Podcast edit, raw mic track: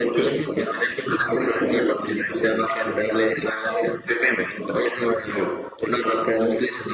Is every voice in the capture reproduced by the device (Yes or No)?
Yes